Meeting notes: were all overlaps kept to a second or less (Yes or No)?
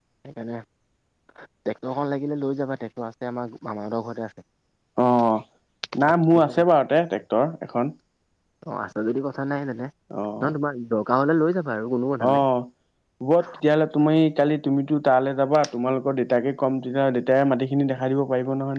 Yes